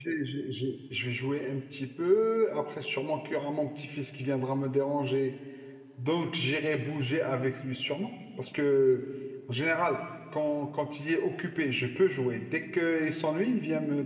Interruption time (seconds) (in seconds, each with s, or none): none